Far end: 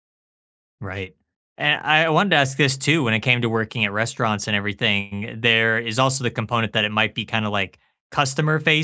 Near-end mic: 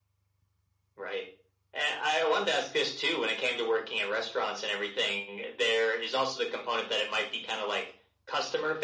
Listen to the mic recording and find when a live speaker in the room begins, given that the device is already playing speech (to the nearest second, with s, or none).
none